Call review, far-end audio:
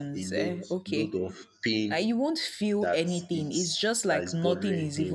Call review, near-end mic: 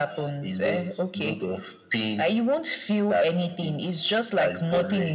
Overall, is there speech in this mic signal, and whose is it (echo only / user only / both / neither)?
echo only